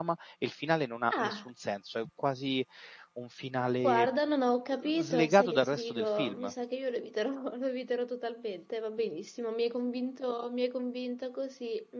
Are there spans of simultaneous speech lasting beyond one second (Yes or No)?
Yes